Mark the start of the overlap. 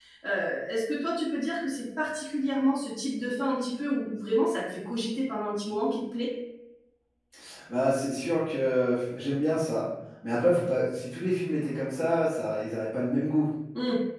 none

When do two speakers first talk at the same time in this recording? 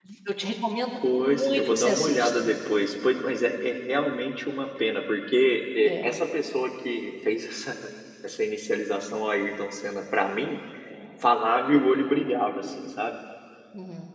1.3 s

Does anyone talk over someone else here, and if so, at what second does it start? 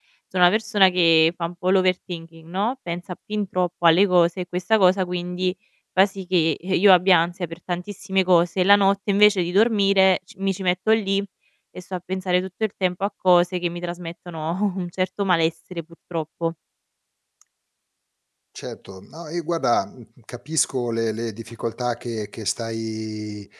none

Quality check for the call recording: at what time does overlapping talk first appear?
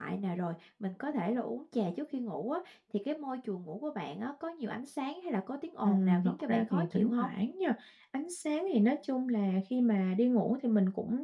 5.8 s

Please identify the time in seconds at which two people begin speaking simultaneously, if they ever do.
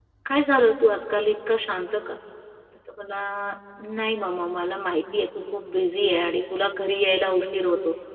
none

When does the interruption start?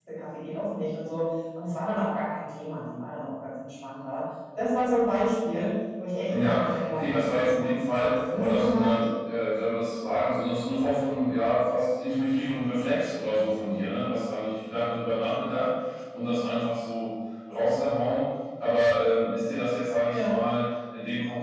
6.3 s

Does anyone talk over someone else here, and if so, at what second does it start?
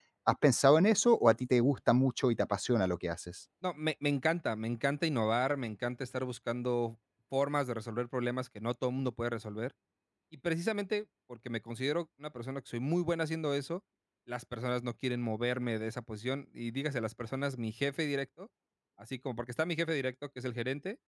none

